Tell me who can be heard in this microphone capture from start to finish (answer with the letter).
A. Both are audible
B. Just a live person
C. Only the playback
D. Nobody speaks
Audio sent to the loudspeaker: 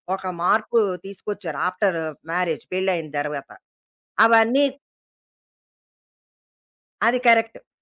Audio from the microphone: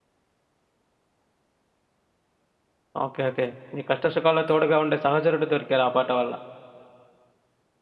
B